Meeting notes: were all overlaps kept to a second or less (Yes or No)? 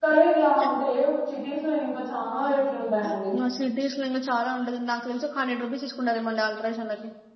Yes